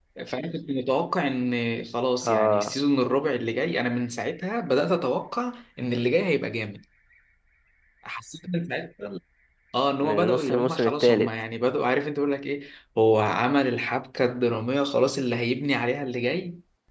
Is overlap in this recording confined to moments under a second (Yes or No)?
No